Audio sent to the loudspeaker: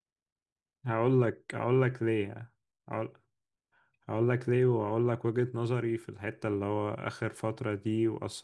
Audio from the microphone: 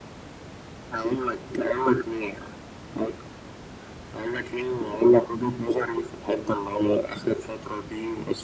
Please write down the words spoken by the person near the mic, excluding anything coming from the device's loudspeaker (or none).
none